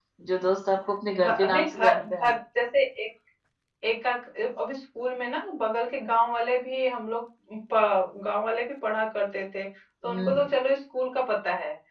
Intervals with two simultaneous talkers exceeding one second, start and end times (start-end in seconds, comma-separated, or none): 1.1-2.4